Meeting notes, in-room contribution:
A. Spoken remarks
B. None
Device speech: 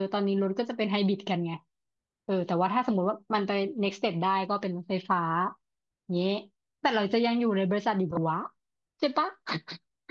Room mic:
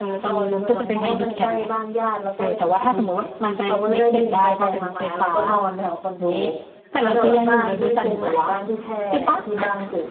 A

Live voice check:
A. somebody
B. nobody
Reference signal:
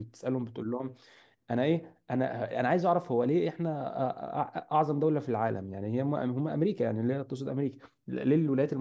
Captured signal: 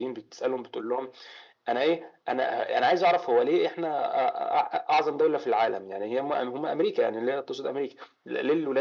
B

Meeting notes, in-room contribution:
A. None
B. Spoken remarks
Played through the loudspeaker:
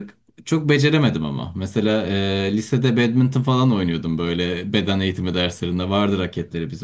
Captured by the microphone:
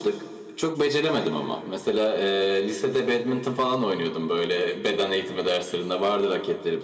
A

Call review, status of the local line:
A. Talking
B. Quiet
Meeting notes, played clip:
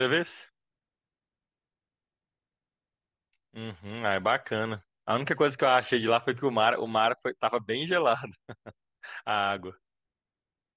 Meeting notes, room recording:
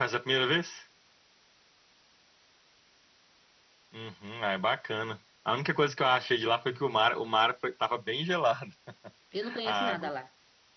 A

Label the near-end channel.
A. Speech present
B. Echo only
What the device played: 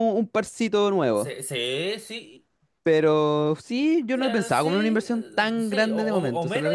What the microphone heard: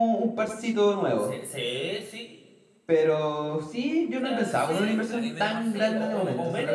A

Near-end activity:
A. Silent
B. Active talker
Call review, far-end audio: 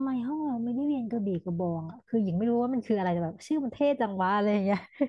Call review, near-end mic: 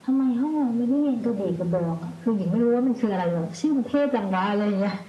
A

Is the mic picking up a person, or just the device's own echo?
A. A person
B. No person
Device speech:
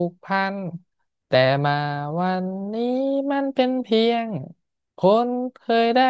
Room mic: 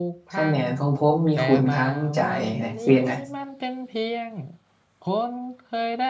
A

